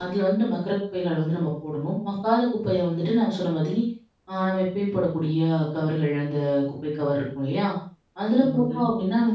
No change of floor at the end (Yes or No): Yes